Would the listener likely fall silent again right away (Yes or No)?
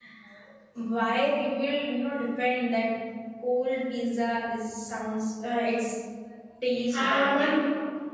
No